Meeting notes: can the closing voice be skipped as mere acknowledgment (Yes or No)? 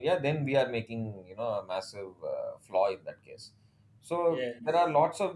Yes